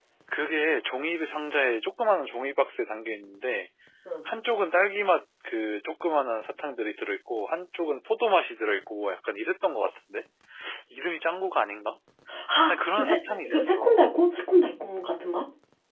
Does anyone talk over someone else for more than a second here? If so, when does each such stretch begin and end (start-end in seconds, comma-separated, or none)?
12.7-14.0